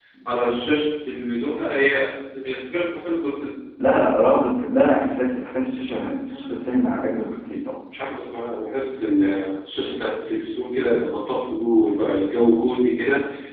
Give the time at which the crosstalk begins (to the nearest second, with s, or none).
none